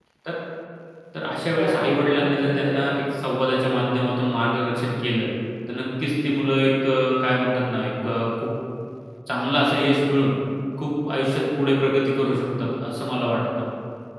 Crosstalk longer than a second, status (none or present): present